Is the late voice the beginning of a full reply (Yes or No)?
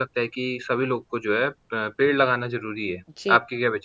Yes